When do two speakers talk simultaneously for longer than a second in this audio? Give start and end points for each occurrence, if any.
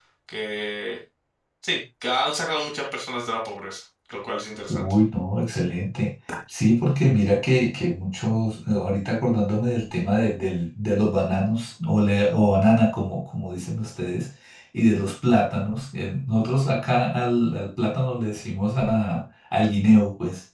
none

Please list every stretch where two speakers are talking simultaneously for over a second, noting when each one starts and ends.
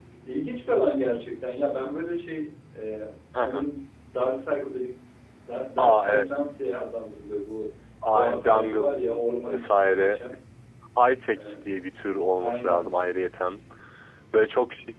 8.1-10.2

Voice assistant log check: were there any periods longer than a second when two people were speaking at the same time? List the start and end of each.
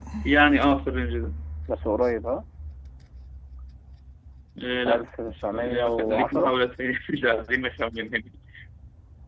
4.9-6.5

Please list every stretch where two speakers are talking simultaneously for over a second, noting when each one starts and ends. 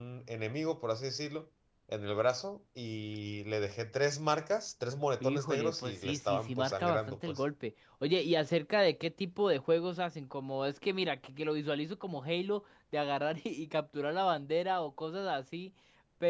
5.2-7.4

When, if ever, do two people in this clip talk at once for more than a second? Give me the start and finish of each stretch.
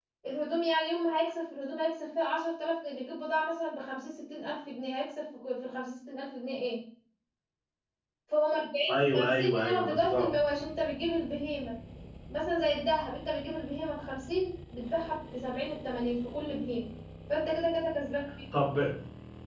8.9-10.3

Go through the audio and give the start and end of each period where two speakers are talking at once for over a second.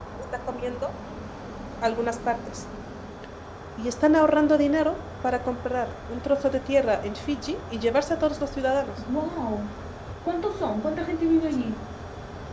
none

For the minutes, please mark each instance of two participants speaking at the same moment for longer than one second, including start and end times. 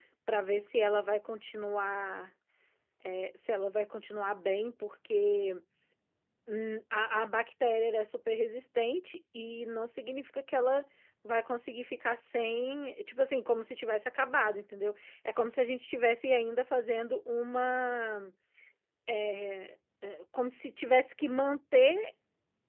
none

